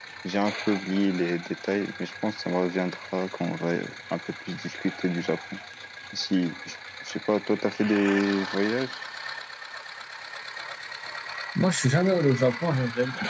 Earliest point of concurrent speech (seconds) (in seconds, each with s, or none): none